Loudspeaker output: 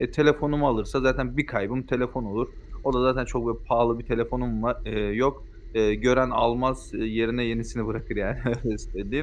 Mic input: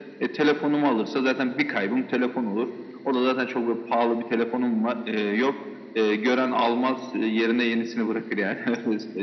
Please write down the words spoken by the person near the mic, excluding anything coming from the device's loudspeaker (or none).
none